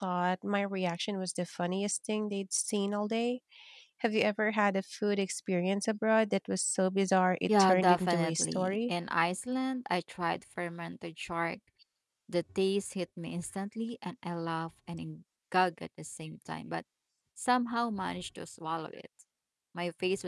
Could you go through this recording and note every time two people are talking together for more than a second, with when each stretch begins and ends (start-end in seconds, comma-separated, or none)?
7.5-8.9